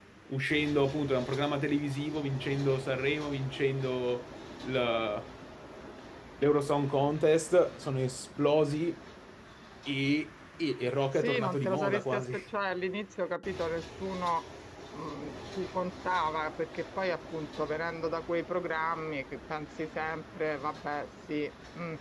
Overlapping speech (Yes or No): Yes